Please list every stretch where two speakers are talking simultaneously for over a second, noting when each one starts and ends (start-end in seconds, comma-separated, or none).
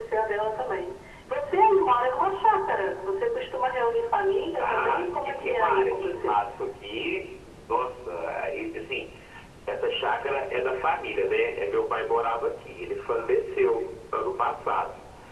4.6-6.4